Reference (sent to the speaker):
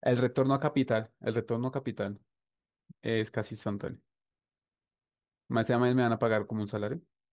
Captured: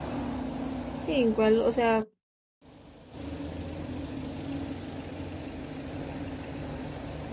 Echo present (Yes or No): No